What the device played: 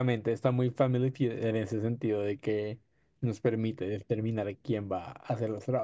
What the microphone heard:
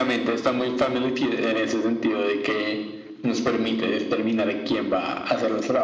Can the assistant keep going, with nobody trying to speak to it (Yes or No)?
Yes